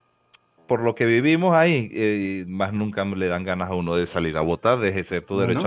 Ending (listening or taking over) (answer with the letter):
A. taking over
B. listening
B